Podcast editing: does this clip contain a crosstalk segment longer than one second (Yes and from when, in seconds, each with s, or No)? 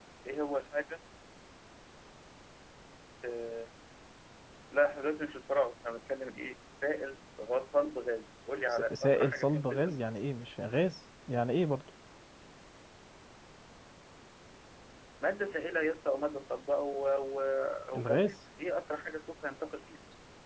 Yes, from 8.7 s